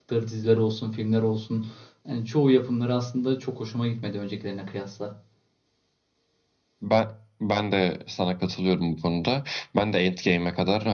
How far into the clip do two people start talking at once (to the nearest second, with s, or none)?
none